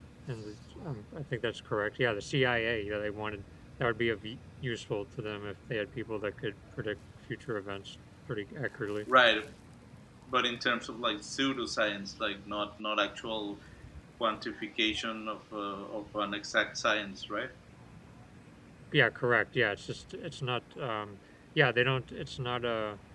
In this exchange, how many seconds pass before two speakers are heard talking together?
none

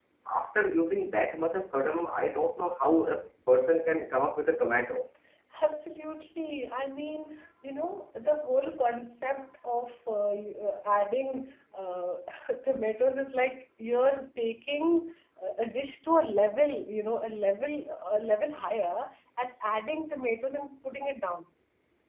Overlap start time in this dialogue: none

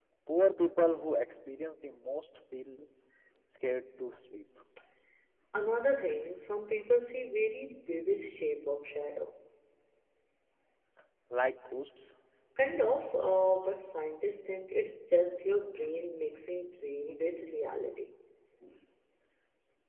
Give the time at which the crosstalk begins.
none

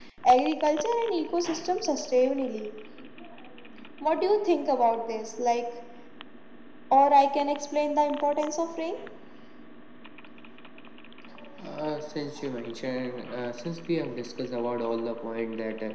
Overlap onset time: none

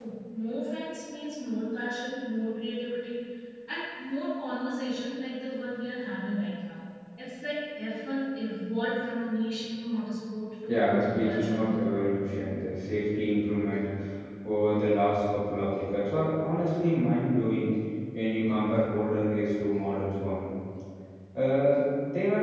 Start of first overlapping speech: 11 s

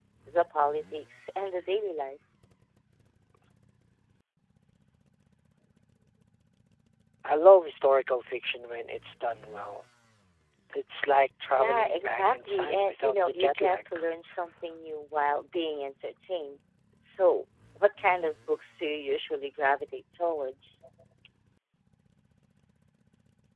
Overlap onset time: 12 s

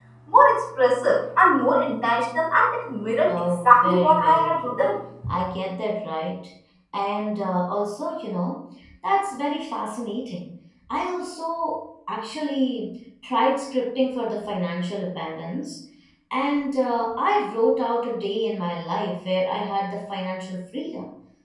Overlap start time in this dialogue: 3 s

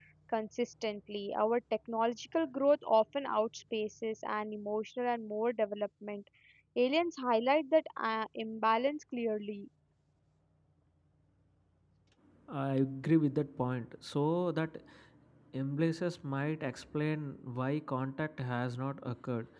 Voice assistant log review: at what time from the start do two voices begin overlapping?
none

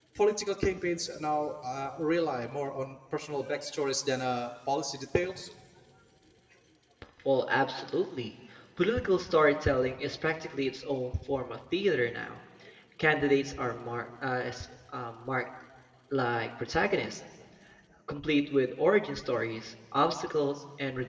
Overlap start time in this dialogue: none

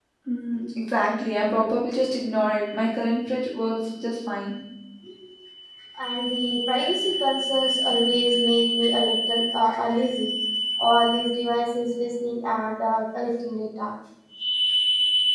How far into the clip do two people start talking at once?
none

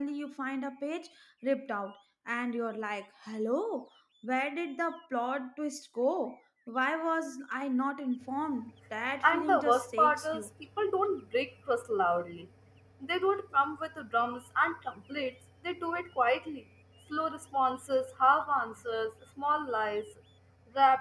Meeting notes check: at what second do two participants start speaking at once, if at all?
9 s

